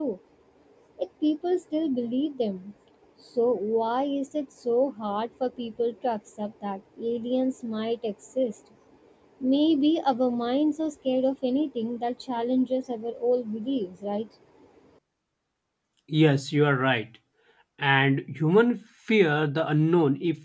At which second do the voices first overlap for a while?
none

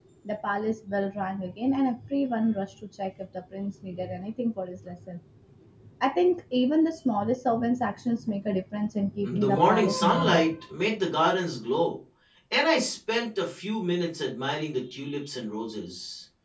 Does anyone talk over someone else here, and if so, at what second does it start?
9.2 s

